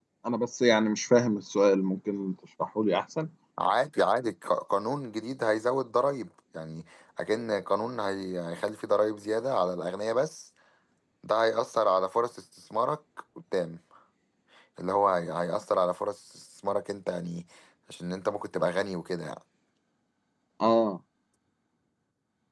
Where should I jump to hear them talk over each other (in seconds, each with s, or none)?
none